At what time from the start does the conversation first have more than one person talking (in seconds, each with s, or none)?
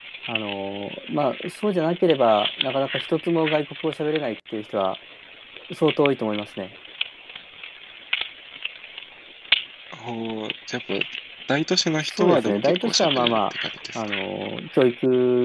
12.1 s